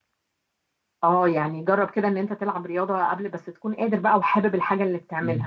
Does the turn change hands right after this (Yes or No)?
Yes